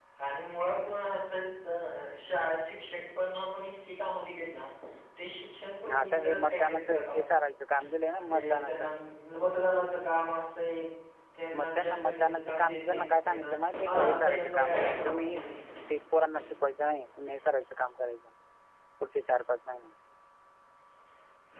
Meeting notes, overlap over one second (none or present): present